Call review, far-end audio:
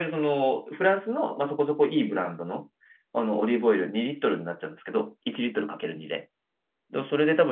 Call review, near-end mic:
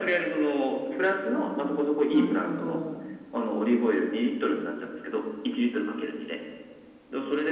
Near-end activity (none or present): present